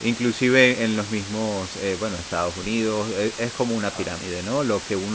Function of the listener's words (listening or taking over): listening